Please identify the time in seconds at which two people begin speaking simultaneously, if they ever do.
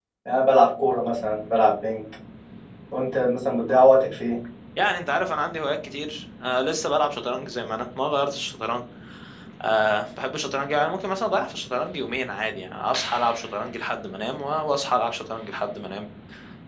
none

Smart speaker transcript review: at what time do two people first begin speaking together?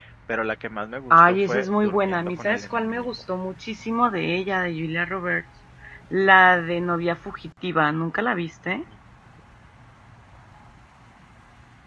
1.1 s

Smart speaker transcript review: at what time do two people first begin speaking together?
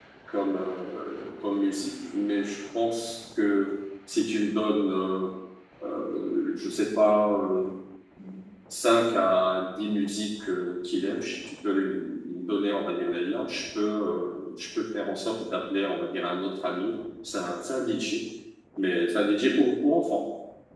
none

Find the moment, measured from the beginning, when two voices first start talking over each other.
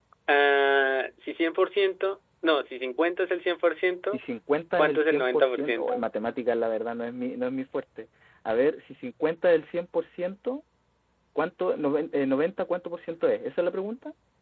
4.8 s

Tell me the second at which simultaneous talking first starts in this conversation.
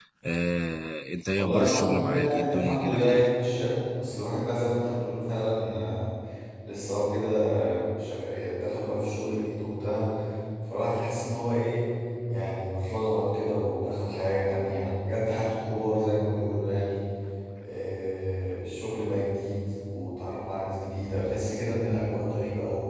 1.4 s

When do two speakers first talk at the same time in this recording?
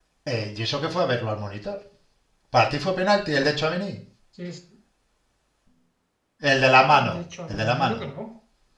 6.9 s

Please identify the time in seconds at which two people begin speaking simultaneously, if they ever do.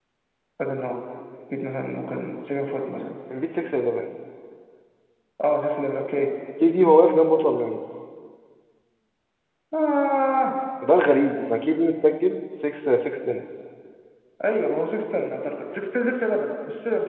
none

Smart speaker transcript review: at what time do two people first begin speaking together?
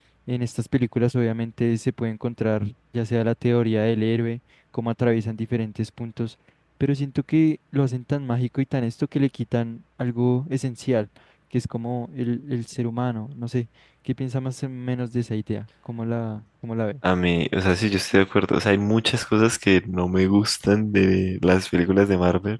none

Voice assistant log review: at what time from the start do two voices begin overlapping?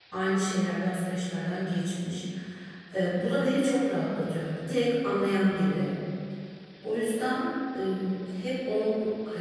none

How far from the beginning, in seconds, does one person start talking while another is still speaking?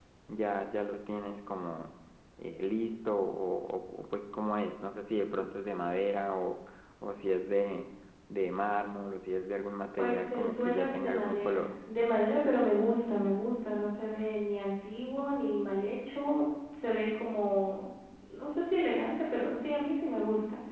10.0 s

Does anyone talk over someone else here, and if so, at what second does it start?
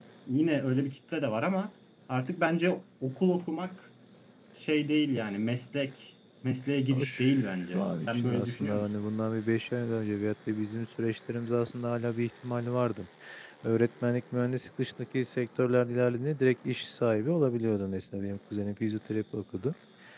6.9 s

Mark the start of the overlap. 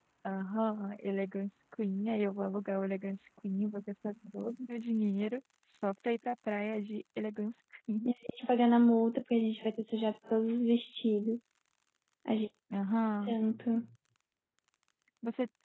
none

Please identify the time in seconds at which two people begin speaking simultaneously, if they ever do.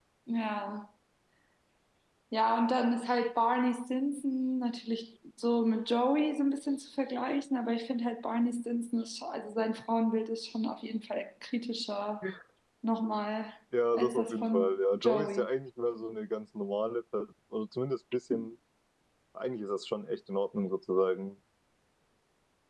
13.9 s

